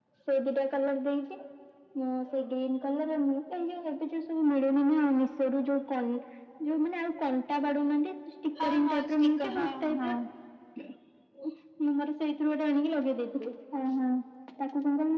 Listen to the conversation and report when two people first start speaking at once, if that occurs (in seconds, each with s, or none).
8.6 s